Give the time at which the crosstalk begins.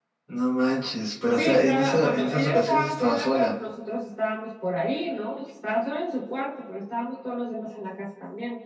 1.3 s

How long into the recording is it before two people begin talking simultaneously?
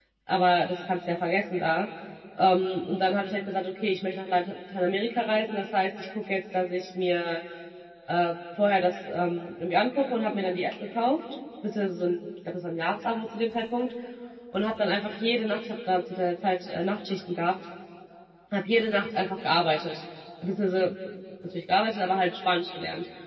none

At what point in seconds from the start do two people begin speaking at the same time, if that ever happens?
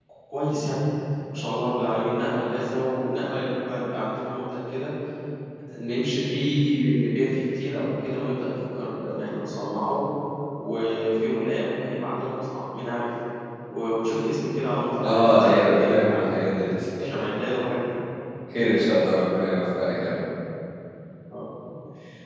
15.0 s

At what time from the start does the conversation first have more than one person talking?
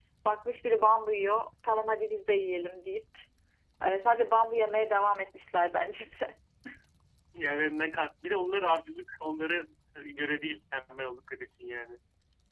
none

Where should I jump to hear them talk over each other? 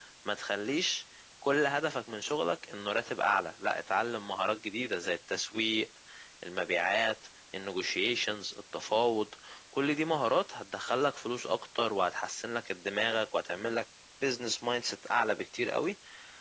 none

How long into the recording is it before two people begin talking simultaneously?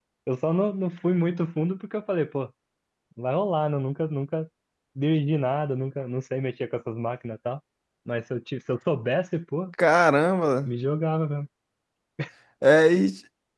none

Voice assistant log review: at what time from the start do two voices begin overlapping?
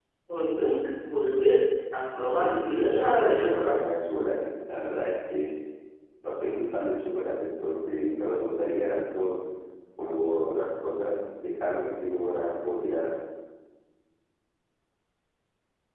2.1 s

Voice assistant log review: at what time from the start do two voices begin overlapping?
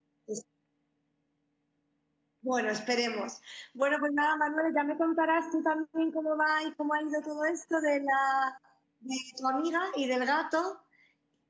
none

